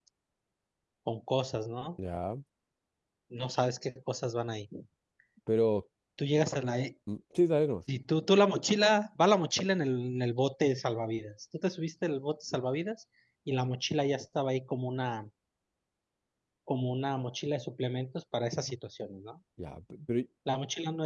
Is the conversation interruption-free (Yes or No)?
Yes